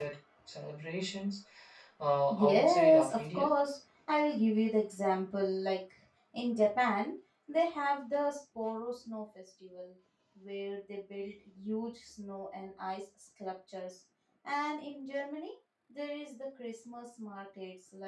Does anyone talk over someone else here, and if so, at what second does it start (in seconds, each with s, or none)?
2.3 s